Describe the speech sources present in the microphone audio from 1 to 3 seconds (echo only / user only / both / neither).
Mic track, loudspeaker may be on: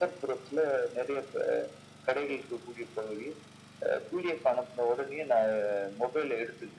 echo only